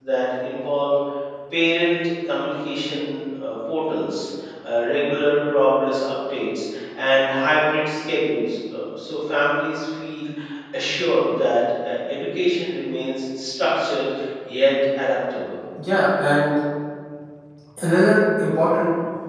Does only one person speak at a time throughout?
Yes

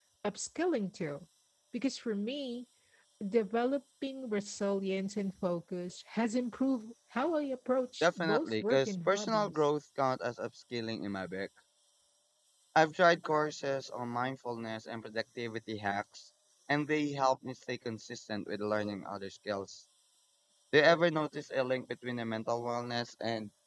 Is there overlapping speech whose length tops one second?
Yes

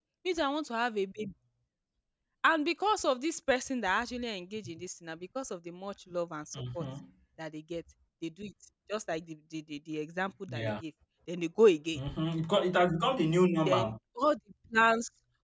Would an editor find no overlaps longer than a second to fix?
Yes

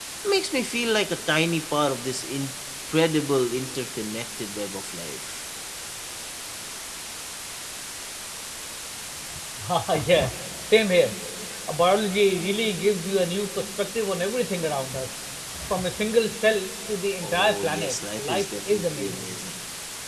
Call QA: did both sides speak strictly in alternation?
No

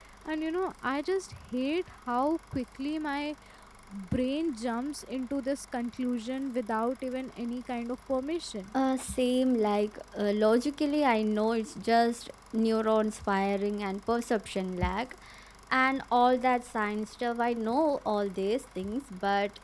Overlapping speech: No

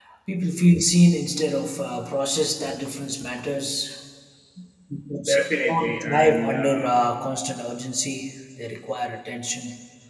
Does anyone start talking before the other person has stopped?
Yes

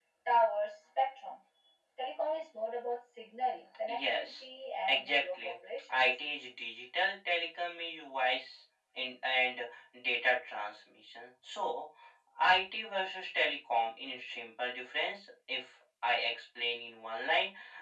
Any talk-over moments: Yes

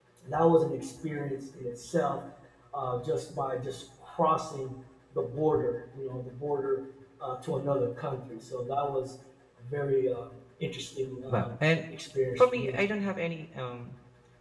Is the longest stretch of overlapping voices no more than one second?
Yes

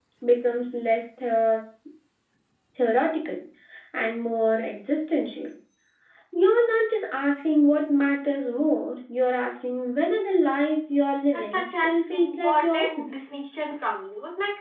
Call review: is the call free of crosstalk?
No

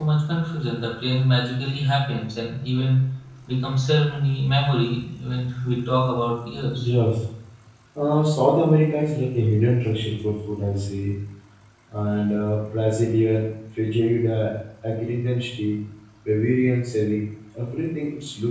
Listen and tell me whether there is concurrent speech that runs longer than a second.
No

